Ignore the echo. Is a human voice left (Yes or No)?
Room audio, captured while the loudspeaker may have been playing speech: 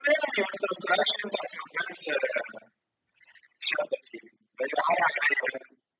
No